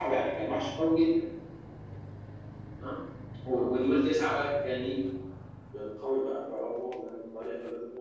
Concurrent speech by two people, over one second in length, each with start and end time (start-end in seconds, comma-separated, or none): none